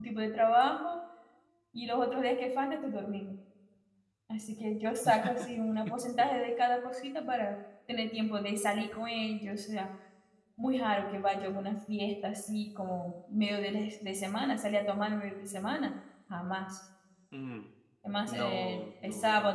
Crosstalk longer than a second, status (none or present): present